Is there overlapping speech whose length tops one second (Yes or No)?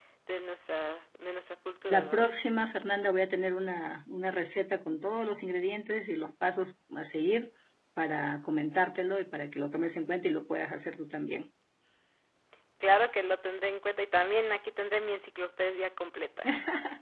No